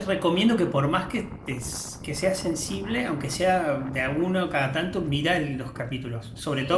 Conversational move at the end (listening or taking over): listening